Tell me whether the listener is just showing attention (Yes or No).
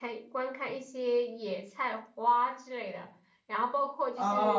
No